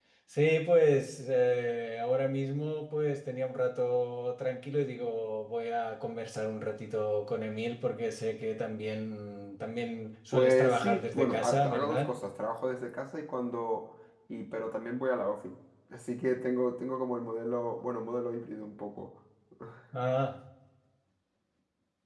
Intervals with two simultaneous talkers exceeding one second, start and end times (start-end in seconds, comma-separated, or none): 10.3-12.1